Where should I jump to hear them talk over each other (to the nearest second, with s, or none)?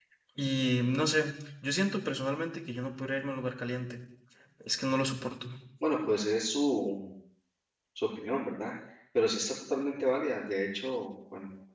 none